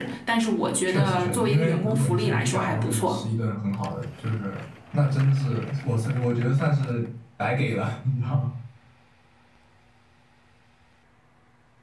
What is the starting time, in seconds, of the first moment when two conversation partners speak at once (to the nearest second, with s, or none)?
1 s